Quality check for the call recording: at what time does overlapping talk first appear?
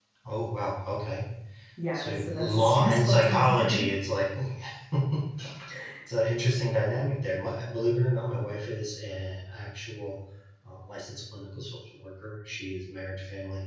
1.9 s

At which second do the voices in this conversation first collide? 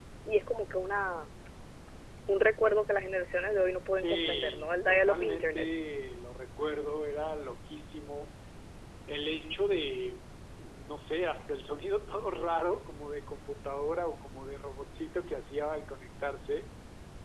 3.9 s

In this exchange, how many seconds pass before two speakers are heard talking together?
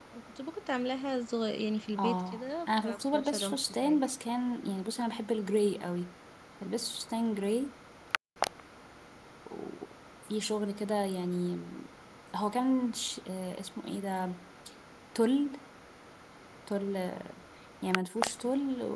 2.0 s

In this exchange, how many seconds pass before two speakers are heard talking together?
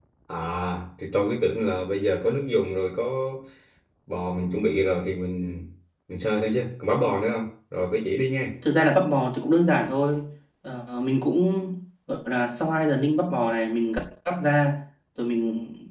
none

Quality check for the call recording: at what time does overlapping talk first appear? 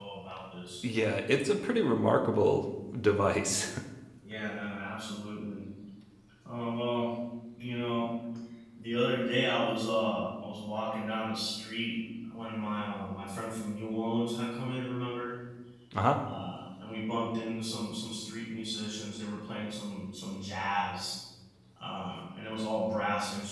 none

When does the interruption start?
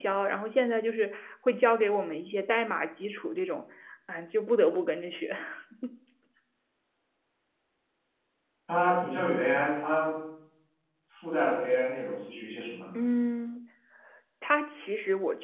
none

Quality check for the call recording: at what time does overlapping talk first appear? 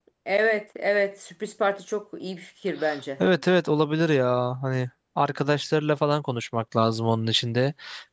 none

